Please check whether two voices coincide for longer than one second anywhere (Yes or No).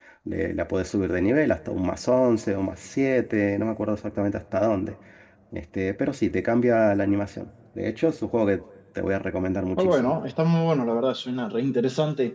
No